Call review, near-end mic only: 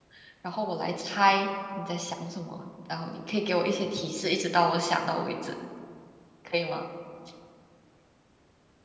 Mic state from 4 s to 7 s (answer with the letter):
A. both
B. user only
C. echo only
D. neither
B